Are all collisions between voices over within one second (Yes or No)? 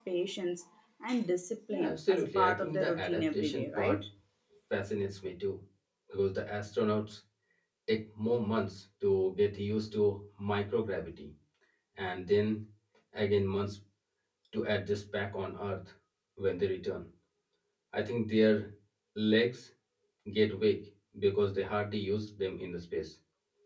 No